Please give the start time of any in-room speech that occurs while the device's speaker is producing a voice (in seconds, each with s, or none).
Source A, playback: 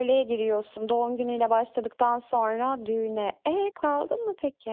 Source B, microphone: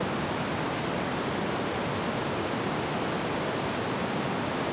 none